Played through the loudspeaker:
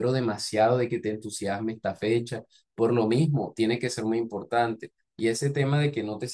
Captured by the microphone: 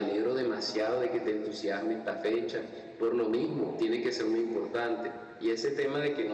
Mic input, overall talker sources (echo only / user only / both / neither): echo only